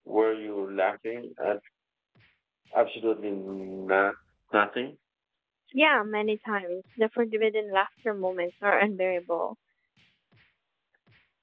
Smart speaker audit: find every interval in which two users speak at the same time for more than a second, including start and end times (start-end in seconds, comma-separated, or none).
none